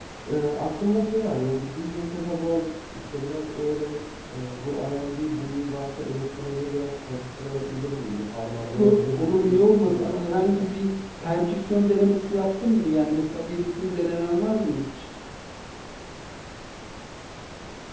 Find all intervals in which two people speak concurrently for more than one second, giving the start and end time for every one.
8.7-10.7

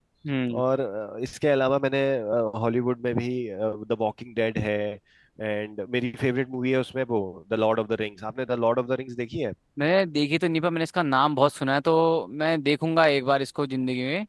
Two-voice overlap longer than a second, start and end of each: none

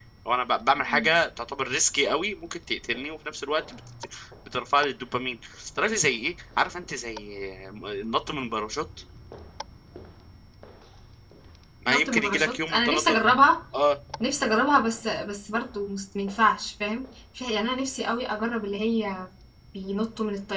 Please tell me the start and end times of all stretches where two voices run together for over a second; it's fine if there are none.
11.9-13.2

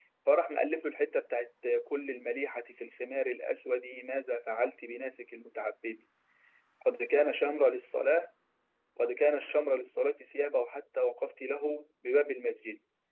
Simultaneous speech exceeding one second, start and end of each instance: none

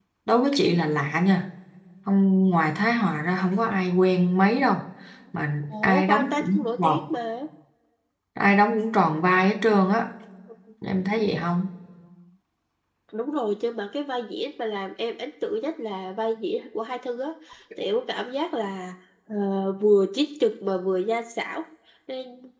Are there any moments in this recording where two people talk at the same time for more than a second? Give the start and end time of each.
5.6-7.0

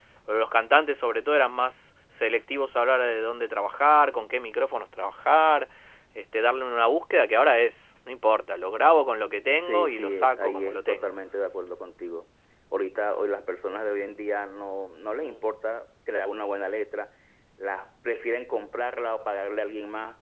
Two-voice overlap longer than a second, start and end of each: 9.7-11.2

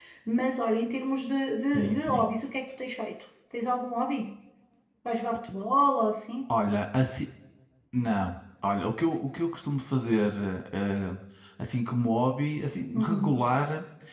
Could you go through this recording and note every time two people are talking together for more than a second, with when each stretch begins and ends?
none

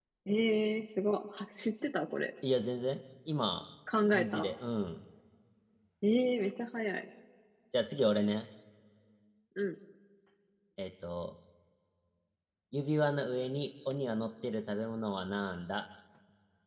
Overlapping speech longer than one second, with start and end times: none

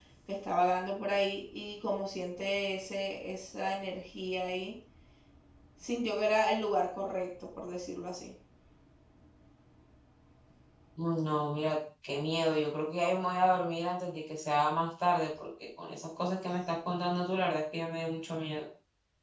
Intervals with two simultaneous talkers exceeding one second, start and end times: none

